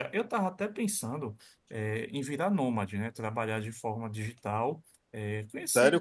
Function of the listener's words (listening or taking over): listening